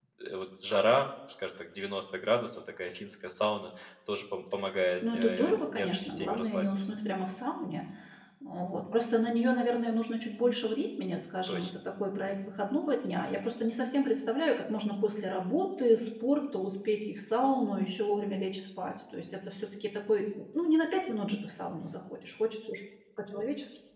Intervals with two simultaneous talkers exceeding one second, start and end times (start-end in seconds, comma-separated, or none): 5.1-6.9